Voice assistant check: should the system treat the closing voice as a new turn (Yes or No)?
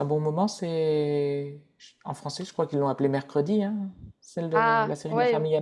Yes